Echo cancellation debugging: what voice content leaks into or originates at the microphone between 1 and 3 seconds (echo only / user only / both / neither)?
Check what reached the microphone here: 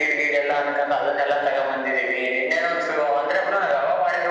echo only